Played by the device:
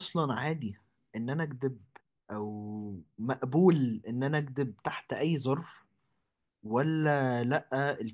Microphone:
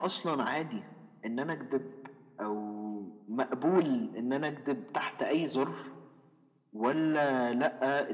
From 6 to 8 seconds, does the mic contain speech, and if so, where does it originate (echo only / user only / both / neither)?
echo only